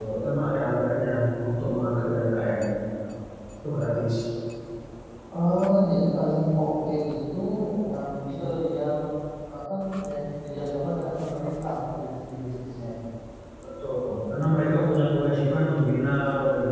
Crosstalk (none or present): none